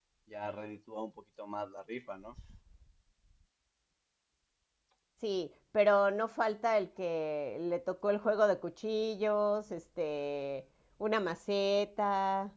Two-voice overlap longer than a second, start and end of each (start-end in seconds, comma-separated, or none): none